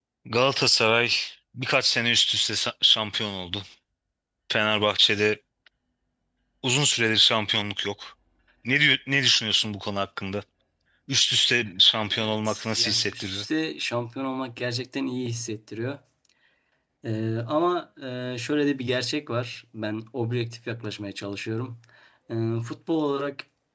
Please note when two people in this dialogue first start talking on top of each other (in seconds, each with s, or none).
11.9 s